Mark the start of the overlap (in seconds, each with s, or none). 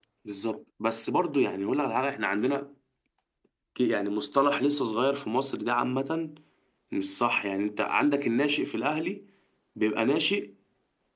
none